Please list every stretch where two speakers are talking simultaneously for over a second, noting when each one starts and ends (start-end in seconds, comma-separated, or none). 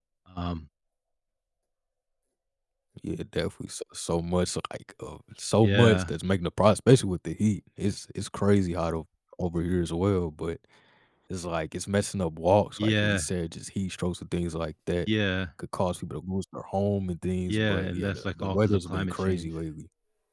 17.5-19.5